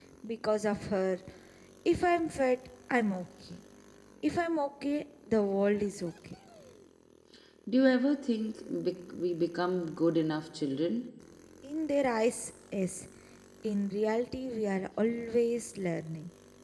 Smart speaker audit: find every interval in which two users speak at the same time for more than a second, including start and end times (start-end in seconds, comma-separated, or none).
none